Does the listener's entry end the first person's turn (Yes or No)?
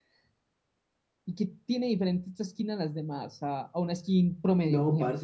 Yes